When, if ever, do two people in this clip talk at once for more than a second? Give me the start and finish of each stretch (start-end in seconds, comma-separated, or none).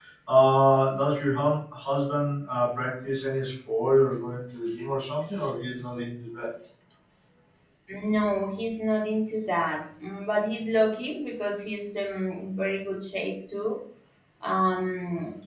none